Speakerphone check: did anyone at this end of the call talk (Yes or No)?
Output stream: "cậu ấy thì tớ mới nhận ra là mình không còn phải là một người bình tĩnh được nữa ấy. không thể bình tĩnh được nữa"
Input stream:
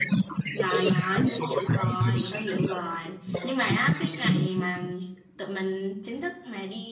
Yes